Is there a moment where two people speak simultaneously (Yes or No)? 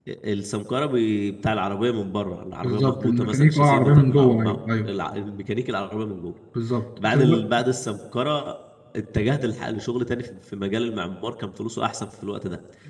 Yes